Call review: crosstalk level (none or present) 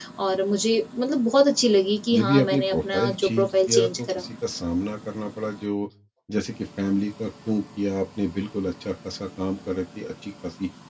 present